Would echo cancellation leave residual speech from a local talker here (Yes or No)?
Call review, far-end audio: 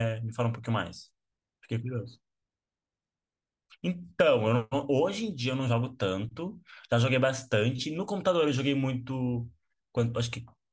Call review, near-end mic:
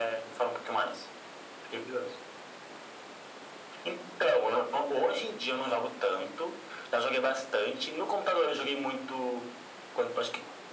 No